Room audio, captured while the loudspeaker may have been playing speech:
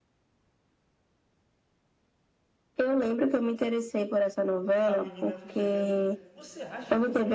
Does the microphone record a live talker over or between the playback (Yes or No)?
Yes